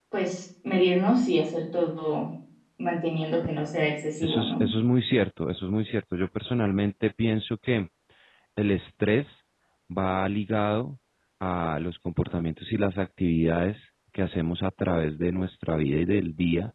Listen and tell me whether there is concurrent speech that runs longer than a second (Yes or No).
No